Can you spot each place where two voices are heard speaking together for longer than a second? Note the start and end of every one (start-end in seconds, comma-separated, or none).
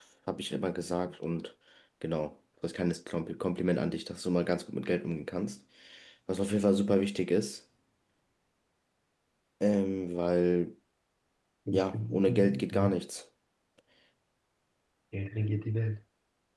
11.7-13.0